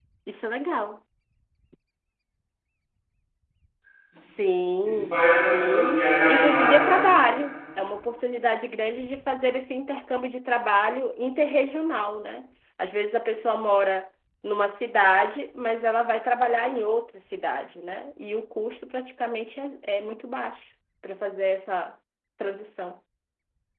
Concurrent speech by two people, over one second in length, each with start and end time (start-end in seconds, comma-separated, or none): 4.8-7.0